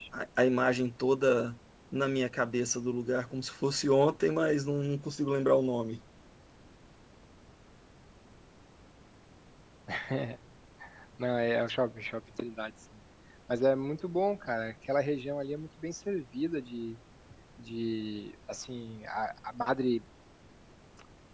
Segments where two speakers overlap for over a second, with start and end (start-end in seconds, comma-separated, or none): none